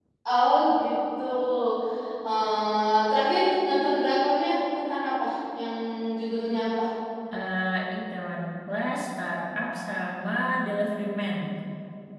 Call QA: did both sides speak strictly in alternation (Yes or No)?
Yes